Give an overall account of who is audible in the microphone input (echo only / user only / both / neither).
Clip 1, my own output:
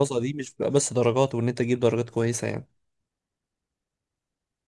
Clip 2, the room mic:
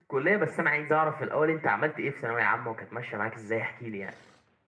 user only